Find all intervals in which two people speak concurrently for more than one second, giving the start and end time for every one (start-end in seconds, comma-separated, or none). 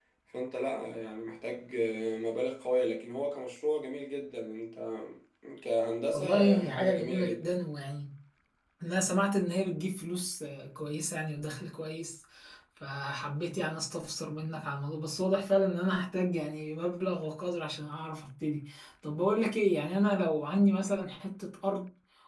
6.1-7.5